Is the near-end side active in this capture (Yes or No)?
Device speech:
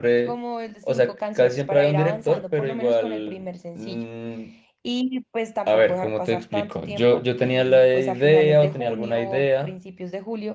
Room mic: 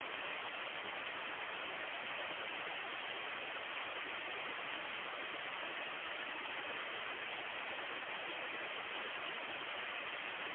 No